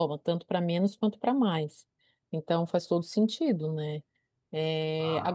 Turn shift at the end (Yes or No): No